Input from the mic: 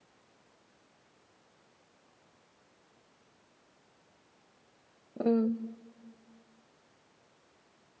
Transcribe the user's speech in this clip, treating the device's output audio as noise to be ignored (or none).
امم.